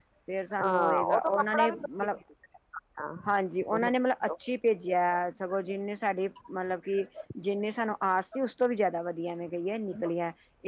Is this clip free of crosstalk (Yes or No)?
No